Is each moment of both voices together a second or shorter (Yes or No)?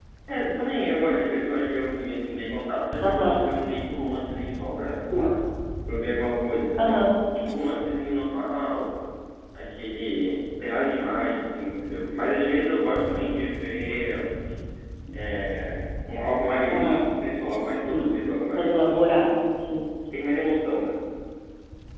Yes